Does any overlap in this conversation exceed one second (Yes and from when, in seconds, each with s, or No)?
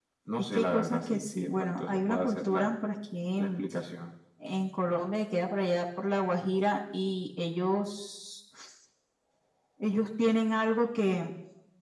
Yes, from 0.5 s